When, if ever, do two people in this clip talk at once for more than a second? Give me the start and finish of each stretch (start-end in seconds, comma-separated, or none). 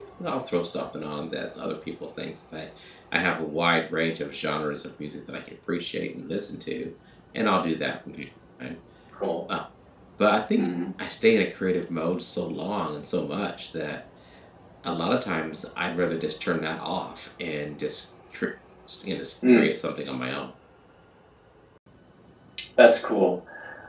none